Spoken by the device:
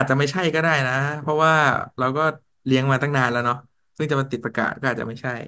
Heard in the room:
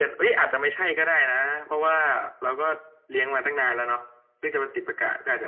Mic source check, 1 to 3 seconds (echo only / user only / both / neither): echo only